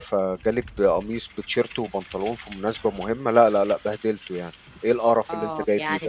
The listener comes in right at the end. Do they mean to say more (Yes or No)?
Yes